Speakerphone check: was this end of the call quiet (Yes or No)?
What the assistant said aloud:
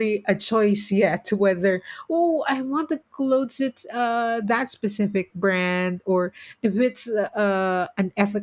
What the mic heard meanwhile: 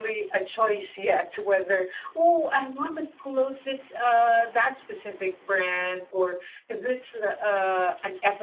Yes